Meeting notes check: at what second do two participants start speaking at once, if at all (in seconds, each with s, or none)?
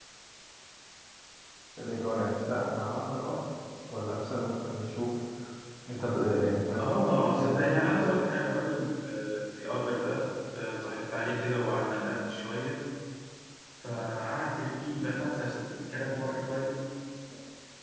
6.8 s